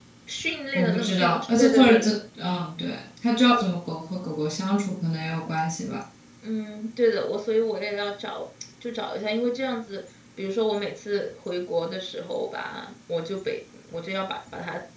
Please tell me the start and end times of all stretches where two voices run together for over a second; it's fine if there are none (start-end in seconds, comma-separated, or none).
0.8-2.1